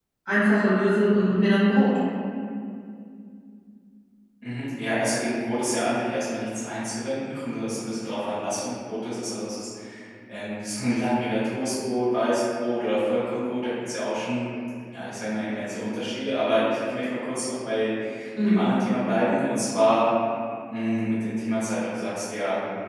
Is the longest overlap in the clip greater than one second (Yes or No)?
No